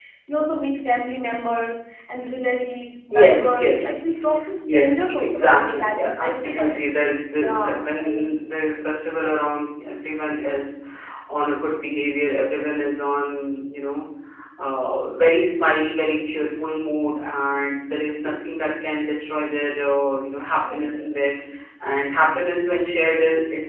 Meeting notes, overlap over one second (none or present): present